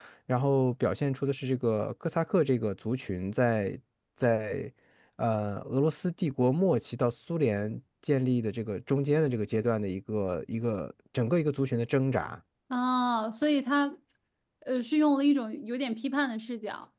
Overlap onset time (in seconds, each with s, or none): none